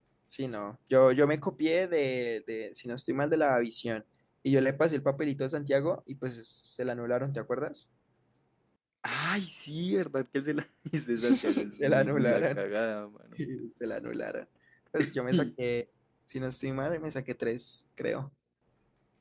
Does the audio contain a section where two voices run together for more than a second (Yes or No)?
Yes